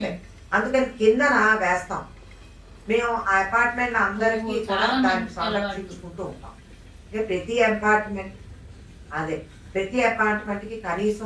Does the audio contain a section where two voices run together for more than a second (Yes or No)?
Yes